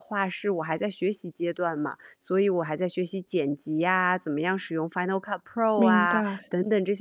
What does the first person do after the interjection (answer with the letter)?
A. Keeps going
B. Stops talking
A